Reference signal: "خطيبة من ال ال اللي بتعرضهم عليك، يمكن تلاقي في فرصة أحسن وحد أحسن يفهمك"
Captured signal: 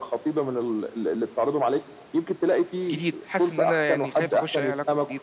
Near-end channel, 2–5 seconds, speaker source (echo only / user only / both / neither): both